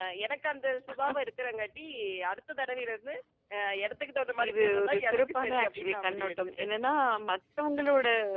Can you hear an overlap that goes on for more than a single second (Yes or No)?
Yes